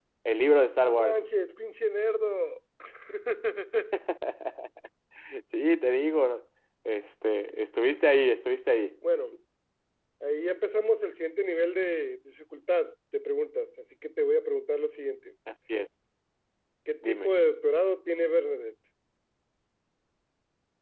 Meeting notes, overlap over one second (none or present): none